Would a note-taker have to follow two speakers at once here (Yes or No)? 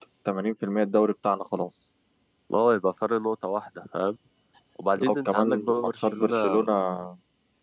Yes